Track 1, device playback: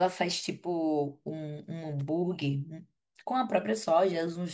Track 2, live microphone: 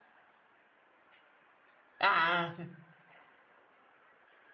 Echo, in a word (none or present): none